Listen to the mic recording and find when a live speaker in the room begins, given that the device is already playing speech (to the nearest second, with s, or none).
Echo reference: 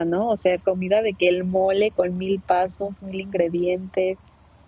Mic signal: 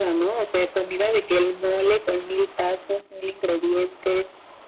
none